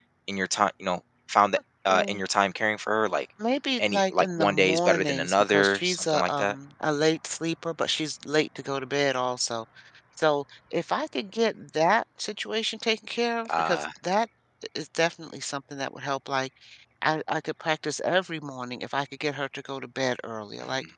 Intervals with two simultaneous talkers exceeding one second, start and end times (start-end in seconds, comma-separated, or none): 3.8-6.6